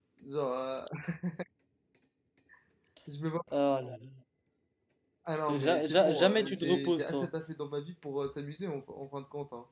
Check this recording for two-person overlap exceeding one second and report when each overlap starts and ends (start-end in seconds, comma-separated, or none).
5.5-7.2